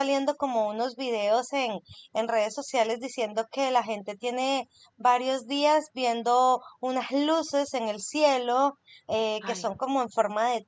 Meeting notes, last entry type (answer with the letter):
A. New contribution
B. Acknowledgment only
B